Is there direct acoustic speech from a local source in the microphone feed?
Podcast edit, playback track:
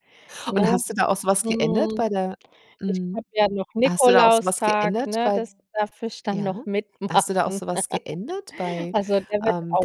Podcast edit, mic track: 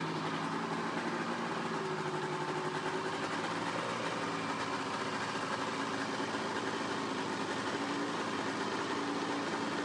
No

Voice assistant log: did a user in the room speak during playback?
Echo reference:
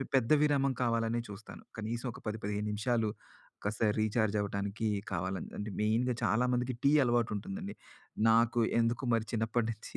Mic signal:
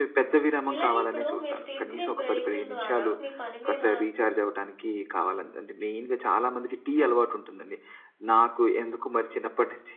Yes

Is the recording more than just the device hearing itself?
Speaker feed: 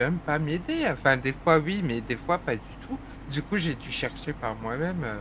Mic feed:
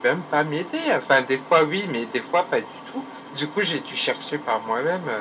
No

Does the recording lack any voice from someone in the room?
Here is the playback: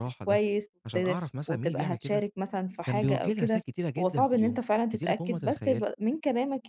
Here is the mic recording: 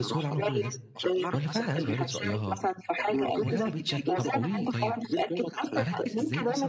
No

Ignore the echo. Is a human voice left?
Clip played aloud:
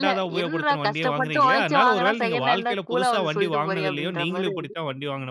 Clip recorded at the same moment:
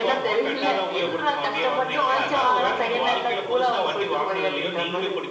Yes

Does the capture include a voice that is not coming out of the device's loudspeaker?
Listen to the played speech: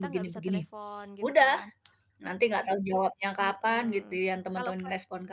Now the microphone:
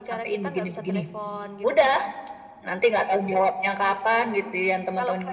No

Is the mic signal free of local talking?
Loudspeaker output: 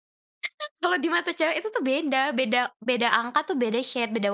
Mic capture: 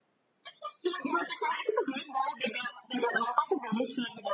Yes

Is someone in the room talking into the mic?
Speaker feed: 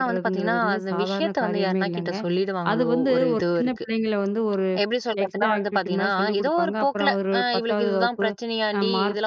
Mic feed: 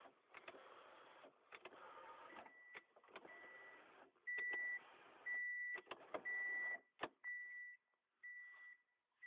No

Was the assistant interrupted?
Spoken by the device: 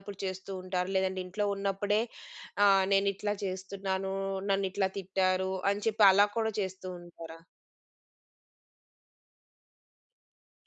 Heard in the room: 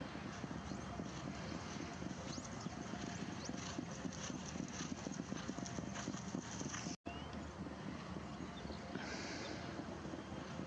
No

